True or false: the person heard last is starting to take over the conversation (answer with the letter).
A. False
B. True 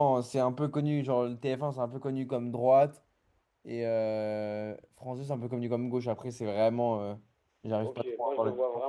B